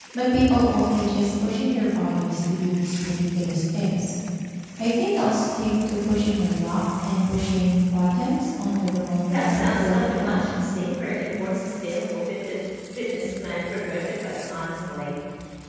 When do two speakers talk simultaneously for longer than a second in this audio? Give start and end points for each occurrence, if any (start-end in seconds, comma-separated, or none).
9.2-10.5